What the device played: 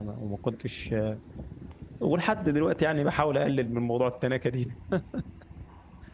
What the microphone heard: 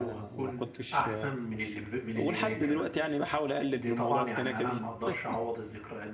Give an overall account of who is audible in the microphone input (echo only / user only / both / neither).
both